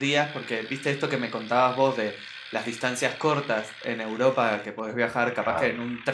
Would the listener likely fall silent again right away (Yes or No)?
Yes